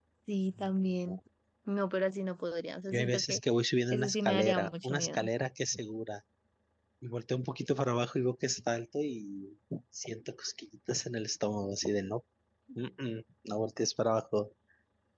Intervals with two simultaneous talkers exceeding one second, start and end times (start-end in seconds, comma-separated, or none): 3.9-5.2